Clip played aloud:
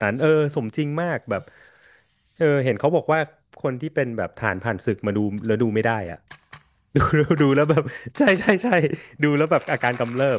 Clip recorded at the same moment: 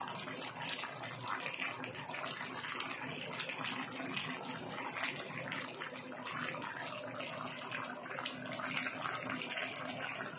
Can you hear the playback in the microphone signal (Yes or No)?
No